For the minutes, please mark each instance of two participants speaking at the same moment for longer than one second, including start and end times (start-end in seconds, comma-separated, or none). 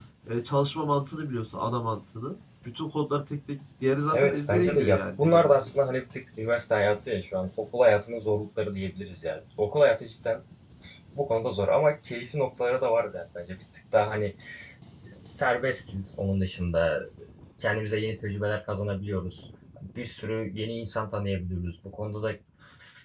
4.1-5.7